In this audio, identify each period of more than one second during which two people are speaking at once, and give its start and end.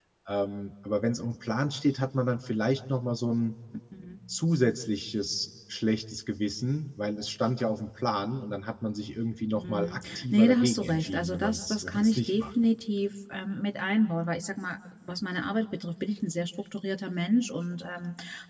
9.5-12.4

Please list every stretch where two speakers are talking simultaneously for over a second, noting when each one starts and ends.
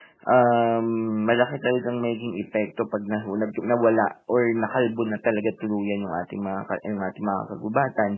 none

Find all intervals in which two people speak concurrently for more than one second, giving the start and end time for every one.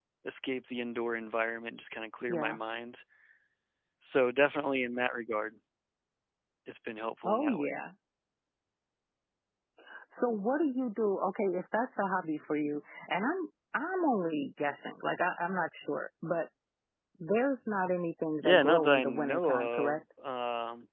18.4-20.0

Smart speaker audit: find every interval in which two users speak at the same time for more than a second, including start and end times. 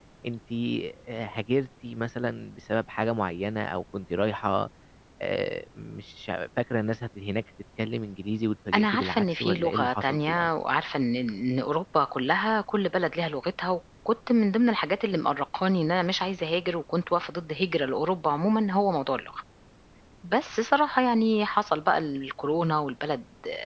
8.7-10.5

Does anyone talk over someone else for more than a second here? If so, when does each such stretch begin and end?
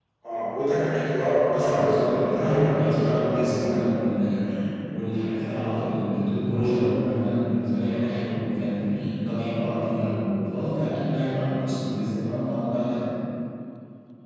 1.5-3.8

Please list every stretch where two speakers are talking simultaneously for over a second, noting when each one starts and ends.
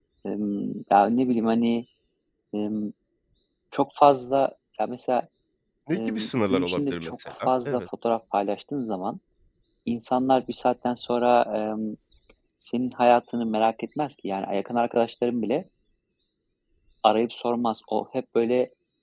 6.0-7.8

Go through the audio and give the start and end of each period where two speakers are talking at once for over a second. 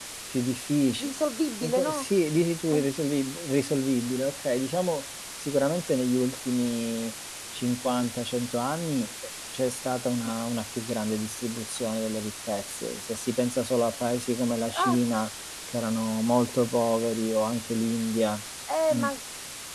none

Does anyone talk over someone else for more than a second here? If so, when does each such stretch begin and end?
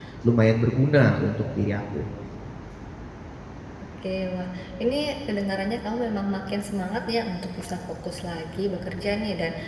none

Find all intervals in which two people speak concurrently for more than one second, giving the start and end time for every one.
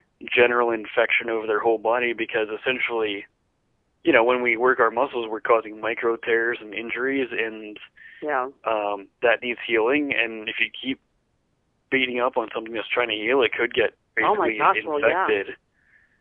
14.2-15.4

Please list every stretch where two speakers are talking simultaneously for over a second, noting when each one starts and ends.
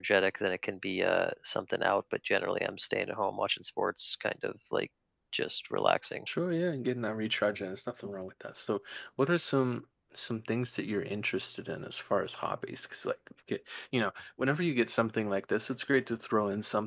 none

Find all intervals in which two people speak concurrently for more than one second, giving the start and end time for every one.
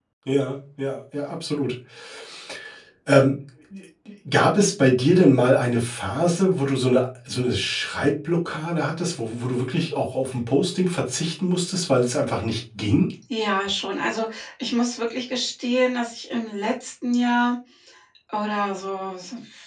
none

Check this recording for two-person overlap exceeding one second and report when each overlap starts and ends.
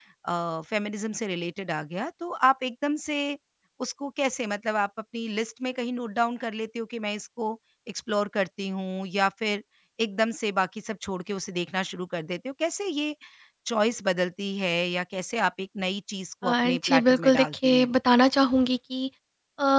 16.4-17.9

